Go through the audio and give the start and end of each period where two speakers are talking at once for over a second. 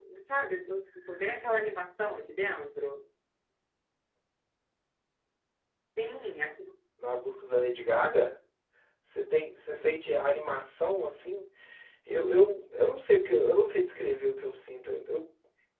none

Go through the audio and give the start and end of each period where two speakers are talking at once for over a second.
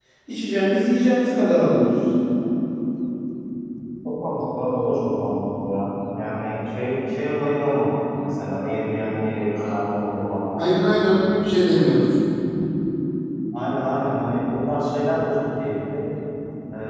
none

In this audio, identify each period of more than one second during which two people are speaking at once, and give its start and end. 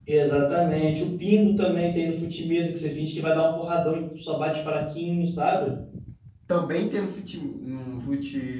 none

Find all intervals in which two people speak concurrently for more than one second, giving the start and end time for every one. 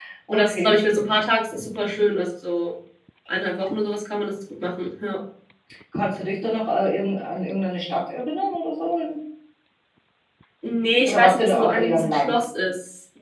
11.1-12.3

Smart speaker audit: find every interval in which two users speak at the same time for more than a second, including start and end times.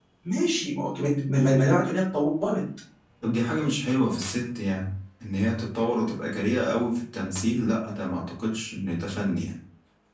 none

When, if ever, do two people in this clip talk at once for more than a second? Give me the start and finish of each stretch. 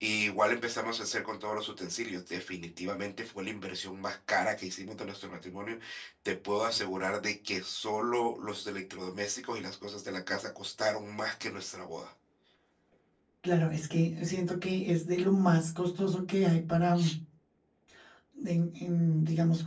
none

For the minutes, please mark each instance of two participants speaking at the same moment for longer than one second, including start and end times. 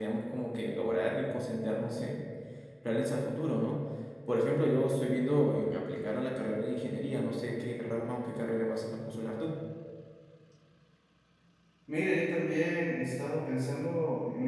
none

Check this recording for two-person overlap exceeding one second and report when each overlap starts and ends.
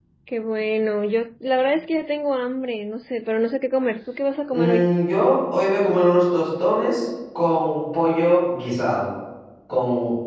none

